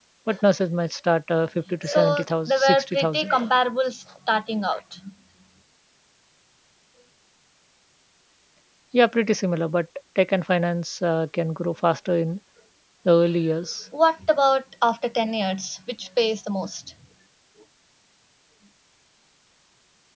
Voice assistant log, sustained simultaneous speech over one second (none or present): present